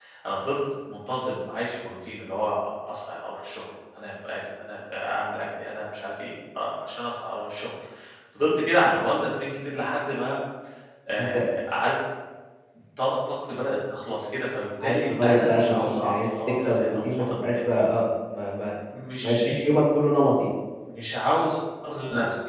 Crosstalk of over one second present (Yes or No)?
Yes